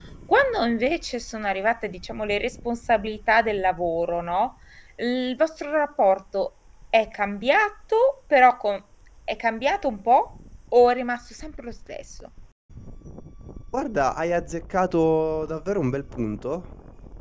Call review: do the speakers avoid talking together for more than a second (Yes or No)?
Yes